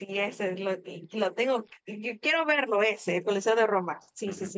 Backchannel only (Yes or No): No